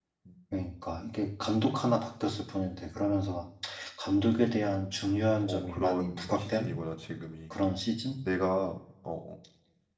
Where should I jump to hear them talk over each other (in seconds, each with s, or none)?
5.4 s